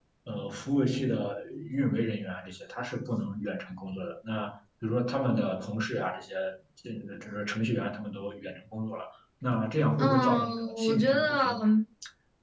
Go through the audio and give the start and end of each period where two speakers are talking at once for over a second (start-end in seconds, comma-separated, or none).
10.0-11.5